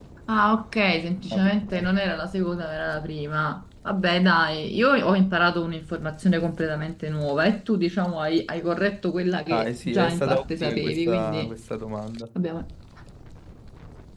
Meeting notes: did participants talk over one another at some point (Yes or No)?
Yes